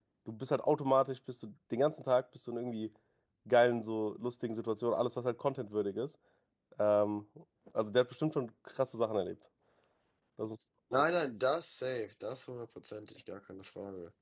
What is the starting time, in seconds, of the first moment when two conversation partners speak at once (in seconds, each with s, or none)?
none